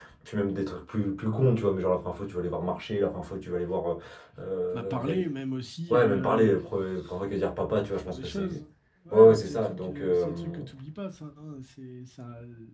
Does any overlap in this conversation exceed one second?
Yes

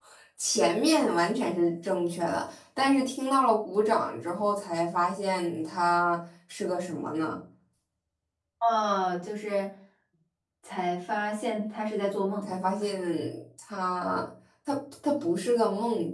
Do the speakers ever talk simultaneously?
No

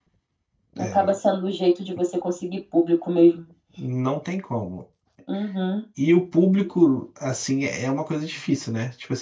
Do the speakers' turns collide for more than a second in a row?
No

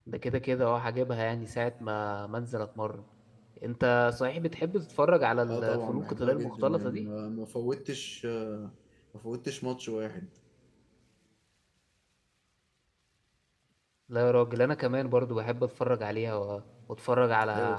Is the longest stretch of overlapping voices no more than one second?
No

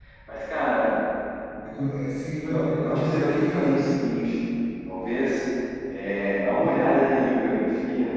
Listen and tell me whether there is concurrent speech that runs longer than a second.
Yes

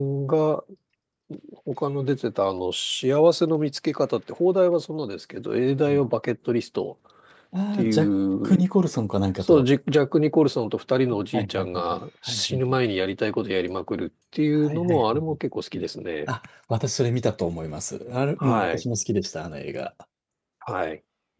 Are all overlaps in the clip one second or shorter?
No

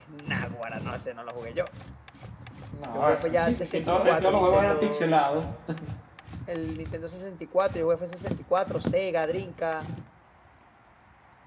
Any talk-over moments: Yes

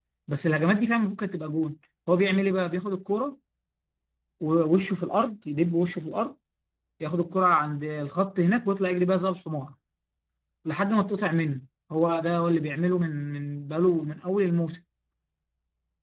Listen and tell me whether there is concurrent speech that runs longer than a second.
No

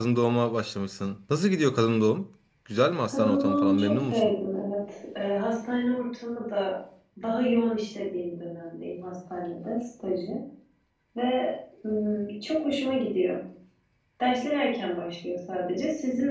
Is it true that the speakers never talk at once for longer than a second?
No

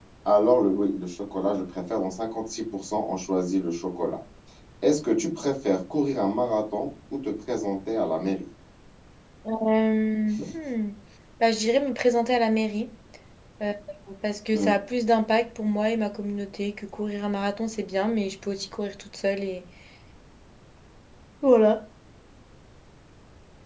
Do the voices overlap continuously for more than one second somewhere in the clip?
No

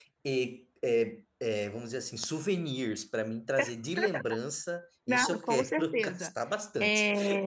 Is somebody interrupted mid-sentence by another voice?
Yes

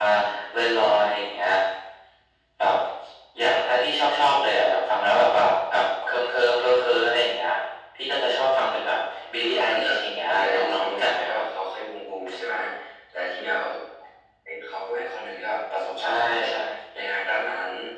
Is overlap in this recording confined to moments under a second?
No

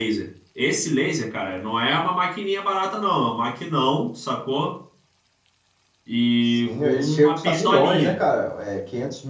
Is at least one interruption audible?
Yes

